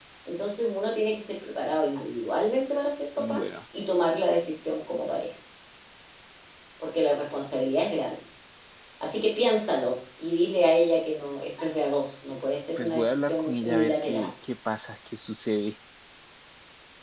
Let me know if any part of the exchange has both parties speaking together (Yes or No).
Yes